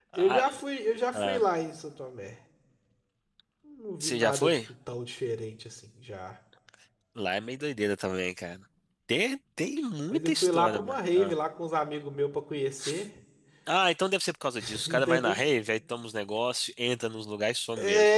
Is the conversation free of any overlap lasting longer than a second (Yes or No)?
No